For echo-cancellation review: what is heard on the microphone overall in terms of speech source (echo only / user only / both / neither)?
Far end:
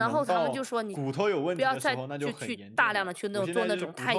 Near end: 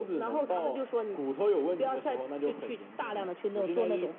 echo only